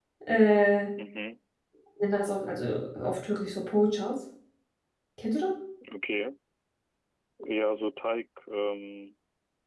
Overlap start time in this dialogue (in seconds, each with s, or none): none